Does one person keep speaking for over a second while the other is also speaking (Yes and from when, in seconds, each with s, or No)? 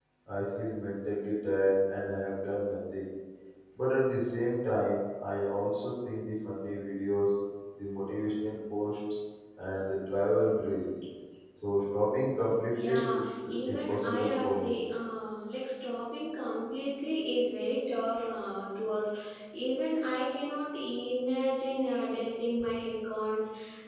Yes, from 12.7 s